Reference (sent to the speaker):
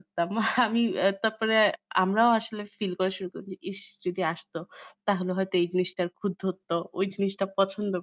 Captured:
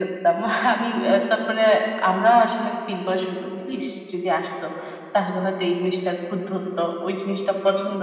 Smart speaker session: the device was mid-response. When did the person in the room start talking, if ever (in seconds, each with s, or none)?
3.7 s